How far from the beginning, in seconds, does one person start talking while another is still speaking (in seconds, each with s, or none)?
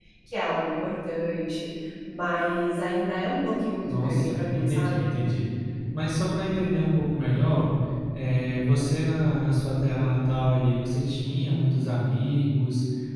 3.9 s